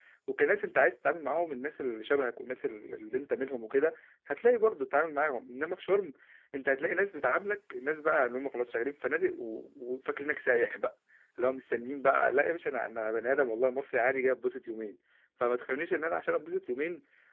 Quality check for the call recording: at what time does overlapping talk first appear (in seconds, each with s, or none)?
none